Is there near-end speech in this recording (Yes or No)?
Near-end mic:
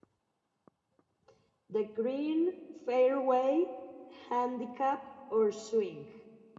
Yes